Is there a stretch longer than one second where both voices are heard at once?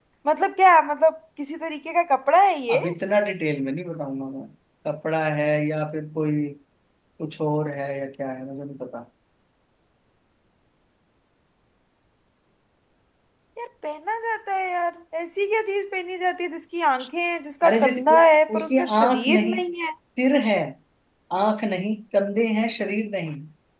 Yes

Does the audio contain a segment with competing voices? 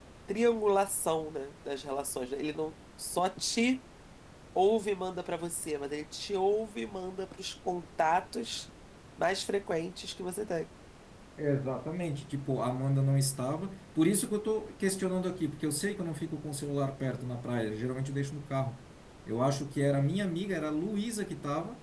No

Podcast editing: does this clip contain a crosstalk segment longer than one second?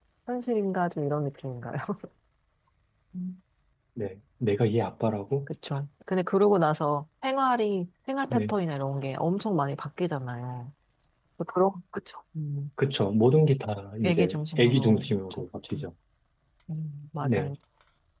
Yes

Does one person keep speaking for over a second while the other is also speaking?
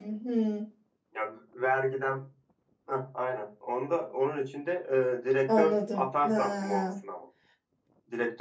Yes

